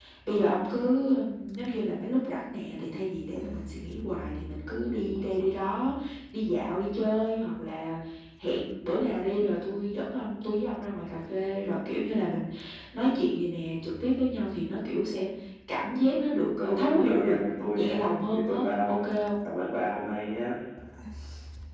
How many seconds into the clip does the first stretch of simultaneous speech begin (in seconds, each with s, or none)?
16.6 s